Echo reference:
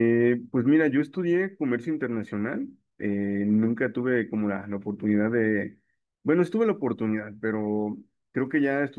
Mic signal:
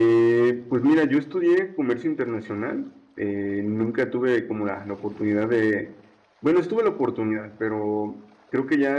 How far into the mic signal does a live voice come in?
none

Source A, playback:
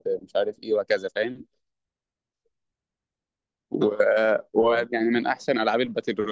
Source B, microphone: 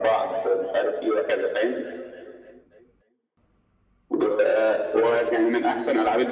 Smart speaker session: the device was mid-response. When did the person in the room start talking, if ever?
none

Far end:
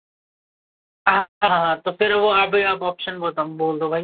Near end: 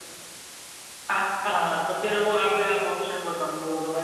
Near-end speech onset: none

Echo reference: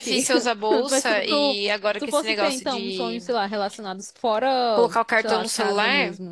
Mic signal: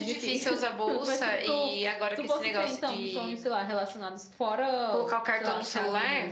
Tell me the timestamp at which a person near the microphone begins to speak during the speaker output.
none

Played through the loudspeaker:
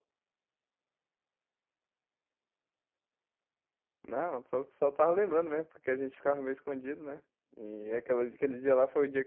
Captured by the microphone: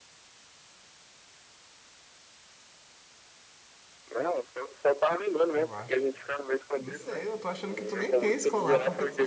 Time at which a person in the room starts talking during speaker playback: 6 s

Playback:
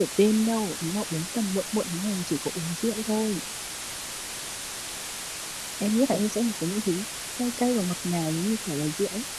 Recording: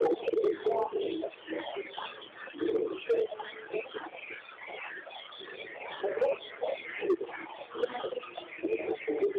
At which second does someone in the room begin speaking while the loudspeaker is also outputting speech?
6 s

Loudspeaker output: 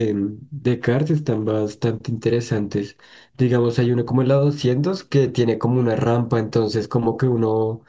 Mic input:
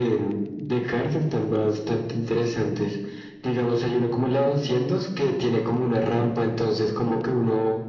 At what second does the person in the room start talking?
none

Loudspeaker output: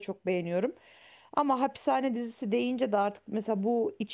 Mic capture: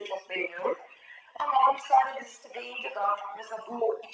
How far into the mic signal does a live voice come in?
none

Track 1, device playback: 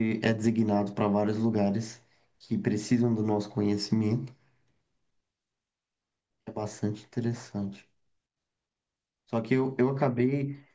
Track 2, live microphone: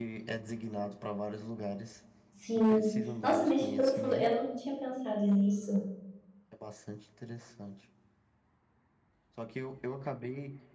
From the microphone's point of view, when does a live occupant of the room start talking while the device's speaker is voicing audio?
2 s

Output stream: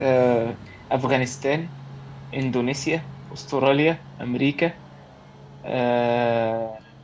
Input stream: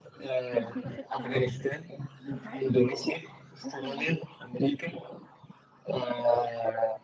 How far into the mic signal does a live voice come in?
1 s

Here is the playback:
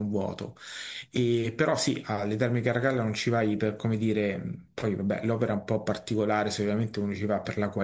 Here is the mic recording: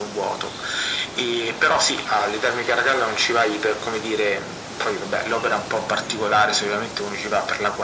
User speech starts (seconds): none

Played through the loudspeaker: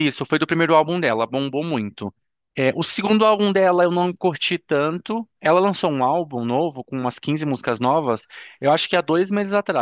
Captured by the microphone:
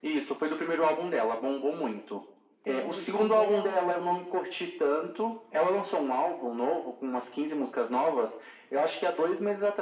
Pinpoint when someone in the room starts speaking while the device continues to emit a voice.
3 s

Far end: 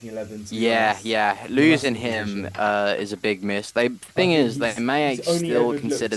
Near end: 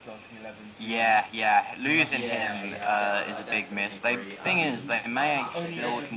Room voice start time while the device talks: 2 s

